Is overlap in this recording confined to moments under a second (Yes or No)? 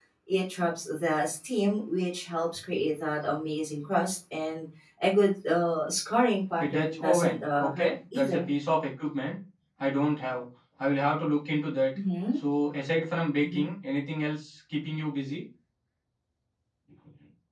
No